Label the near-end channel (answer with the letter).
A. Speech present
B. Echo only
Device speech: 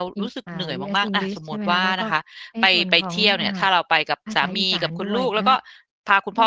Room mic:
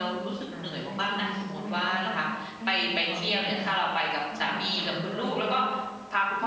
B